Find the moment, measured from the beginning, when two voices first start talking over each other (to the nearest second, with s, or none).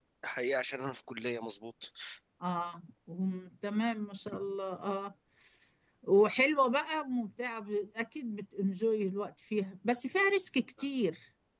none